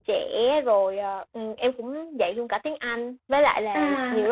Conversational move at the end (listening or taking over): listening